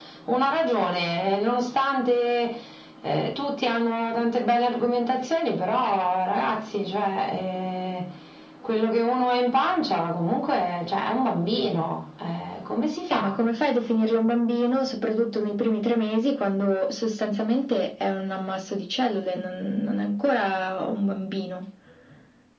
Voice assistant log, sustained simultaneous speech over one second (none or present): none